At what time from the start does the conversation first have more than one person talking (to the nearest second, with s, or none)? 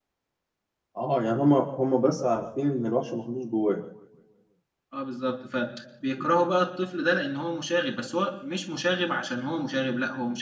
none